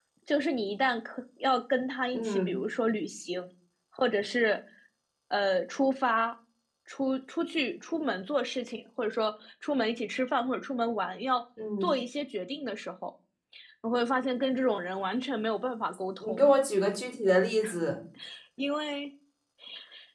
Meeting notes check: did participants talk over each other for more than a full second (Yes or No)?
No